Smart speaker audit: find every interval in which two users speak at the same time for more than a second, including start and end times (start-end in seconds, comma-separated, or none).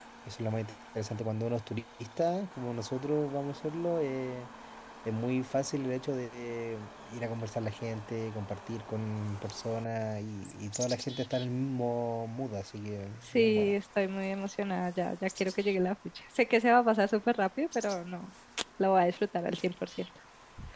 none